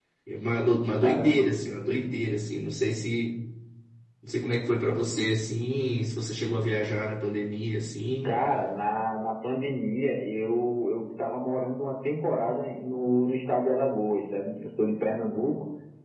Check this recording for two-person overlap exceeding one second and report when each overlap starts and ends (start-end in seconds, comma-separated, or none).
none